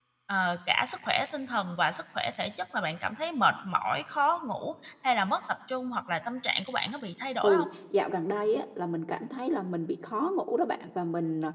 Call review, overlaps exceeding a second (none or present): none